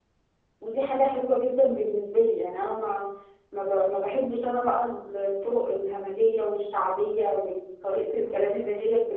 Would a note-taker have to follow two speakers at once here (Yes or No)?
No